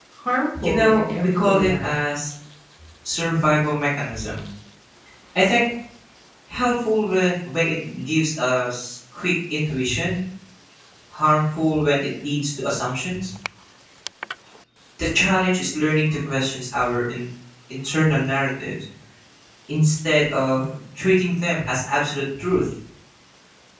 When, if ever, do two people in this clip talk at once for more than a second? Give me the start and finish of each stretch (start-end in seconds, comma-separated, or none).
0.6-2.0